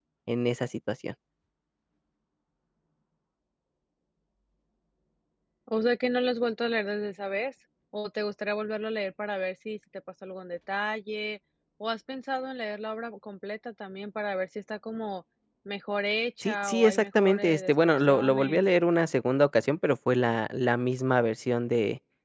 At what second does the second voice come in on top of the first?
16.4 s

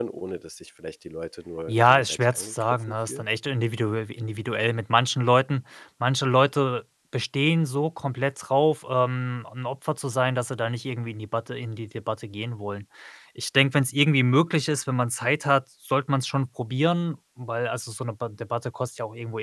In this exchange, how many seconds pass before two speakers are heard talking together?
1.7 s

